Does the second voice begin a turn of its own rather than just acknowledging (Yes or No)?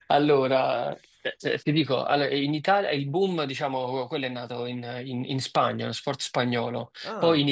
No